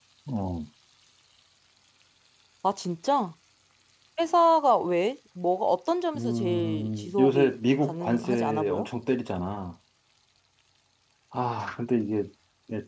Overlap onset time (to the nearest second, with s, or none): 6 s